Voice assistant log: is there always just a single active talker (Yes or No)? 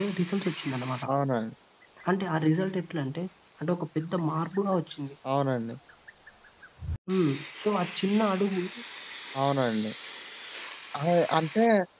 Yes